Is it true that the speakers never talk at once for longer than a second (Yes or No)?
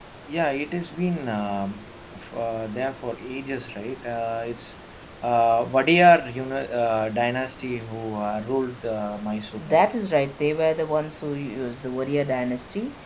Yes